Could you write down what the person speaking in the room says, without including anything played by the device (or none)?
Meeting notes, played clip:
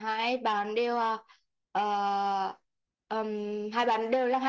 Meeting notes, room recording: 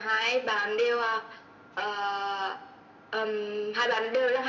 none